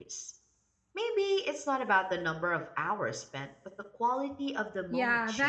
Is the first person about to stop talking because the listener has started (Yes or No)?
Yes